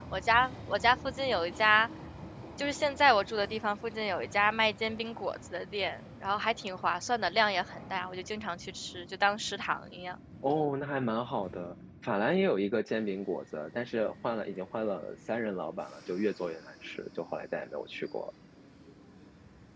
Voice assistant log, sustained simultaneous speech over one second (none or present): none